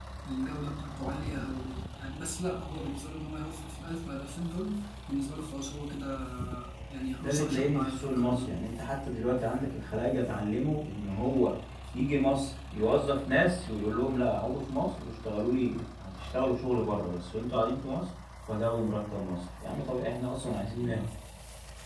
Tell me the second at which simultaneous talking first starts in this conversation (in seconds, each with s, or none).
7.2 s